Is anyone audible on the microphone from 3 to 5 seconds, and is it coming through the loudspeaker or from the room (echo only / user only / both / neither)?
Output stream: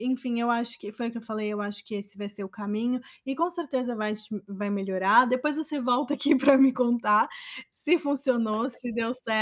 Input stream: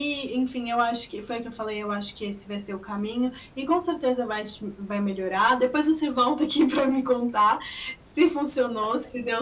echo only